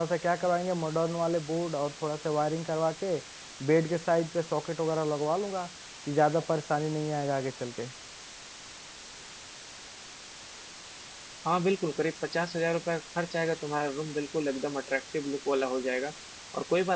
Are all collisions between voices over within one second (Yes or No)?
Yes